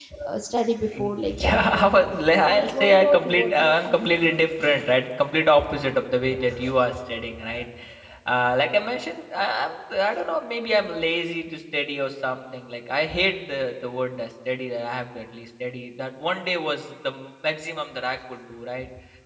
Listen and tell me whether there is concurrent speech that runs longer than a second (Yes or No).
Yes